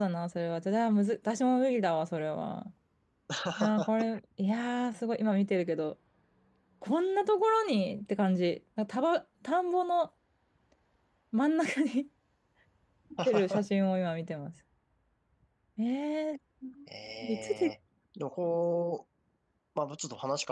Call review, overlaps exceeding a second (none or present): none